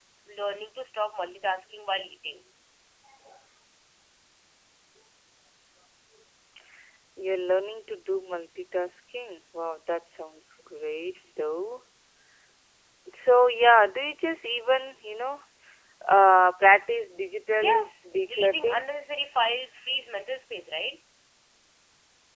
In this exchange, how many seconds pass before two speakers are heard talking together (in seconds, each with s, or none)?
17.6 s